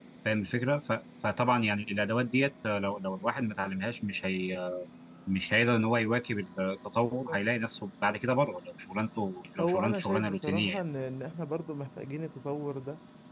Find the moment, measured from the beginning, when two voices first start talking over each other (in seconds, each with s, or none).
9.6 s